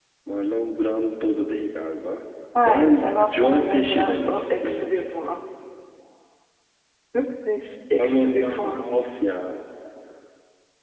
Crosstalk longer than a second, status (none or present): present